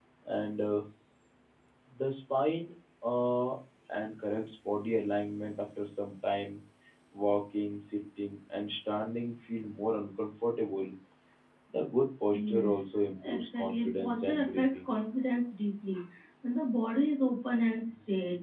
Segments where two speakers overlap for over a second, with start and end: 13.2-14.9

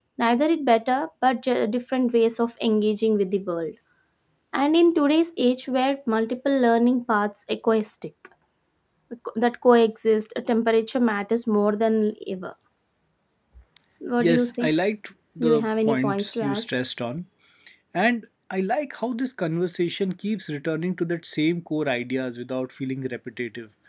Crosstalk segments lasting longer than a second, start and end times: 15.4-16.6

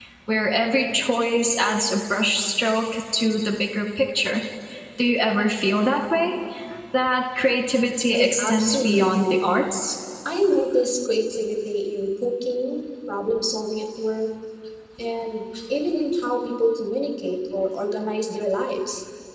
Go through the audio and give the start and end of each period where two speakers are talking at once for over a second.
8.1-9.4

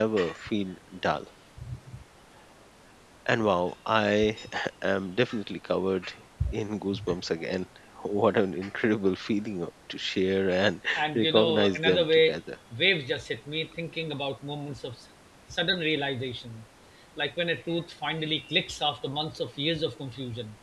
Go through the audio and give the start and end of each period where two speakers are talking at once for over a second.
10.9-12.4

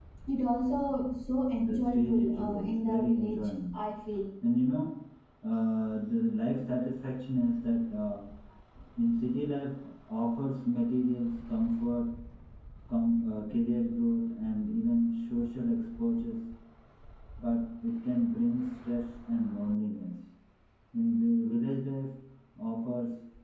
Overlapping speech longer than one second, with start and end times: 1.6-3.5

